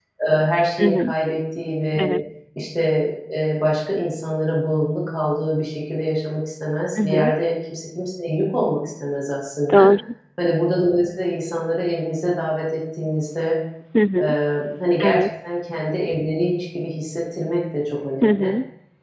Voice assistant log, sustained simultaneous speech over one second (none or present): none